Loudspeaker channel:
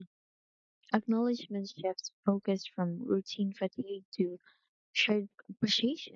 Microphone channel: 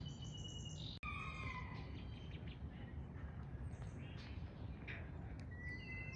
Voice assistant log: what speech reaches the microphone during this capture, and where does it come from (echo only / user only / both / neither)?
neither